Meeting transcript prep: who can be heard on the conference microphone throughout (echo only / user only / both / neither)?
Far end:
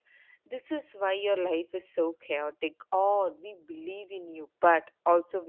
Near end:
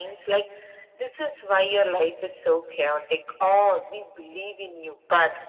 echo only